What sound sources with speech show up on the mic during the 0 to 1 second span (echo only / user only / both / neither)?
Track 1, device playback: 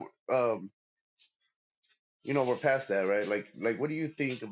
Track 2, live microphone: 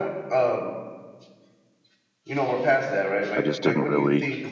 echo only